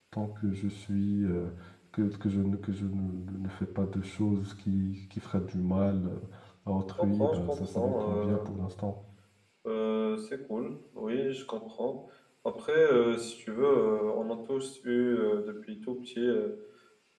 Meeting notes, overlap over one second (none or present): present